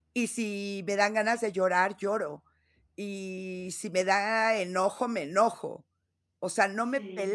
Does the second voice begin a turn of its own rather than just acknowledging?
No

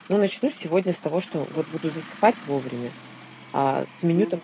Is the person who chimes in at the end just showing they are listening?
Yes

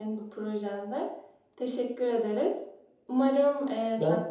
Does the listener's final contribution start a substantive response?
No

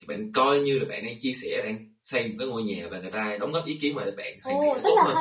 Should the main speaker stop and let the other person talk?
Yes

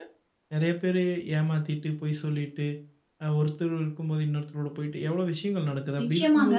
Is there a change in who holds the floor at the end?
Yes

